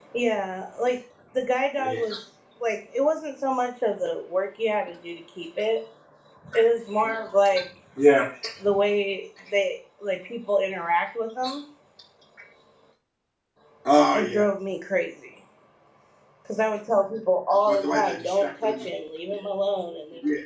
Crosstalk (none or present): present